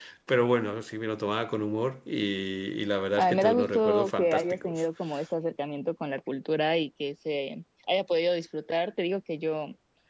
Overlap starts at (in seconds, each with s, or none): 3.2 s